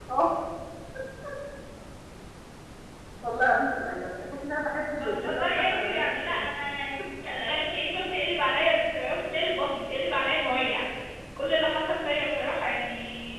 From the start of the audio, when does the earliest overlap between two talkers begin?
5.0 s

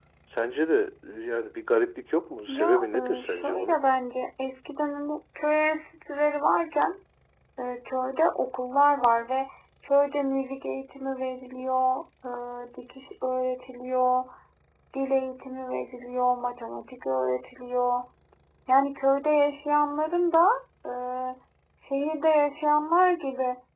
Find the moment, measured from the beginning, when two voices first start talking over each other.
2.5 s

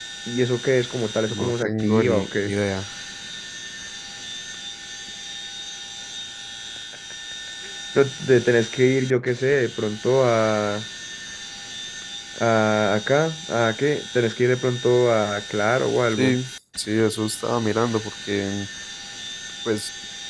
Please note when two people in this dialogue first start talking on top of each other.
1.3 s

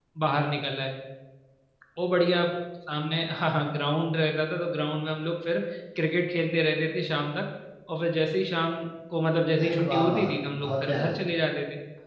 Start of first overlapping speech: 9.6 s

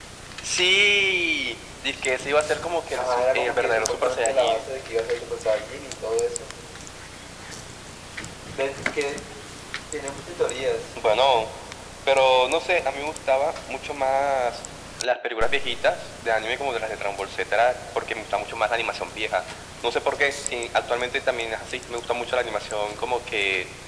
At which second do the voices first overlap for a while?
2.9 s

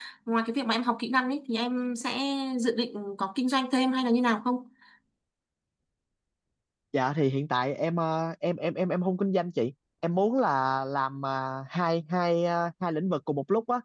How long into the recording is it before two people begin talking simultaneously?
none

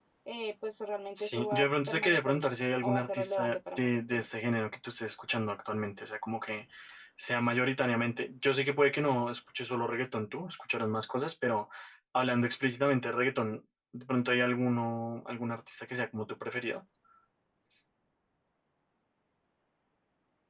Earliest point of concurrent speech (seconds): 1.1 s

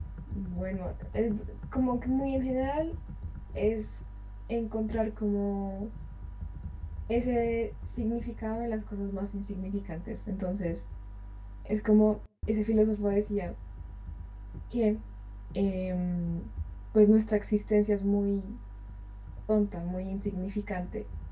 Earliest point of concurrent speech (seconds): none

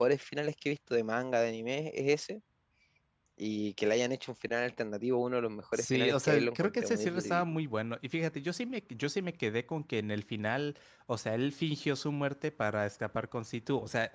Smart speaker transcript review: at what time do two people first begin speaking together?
5.7 s

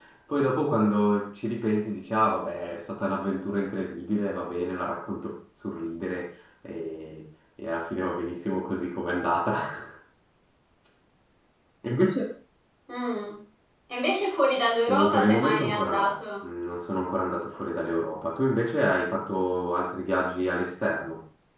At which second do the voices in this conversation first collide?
14.7 s

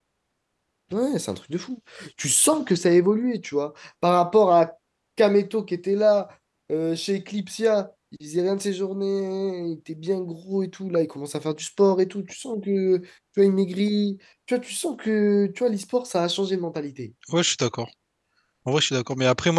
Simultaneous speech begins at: none

